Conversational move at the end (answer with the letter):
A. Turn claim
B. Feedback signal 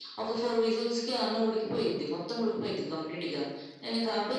A